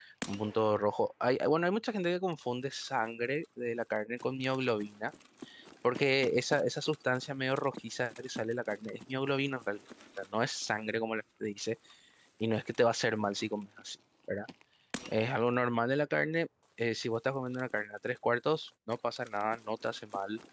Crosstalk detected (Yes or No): No